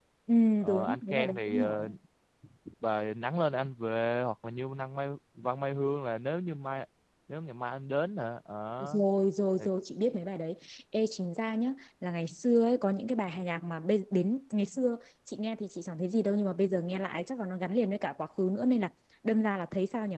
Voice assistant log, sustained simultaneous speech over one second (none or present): present